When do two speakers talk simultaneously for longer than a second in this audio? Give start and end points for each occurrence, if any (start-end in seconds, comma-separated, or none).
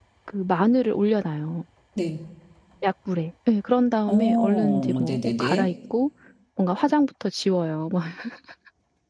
4.1-5.7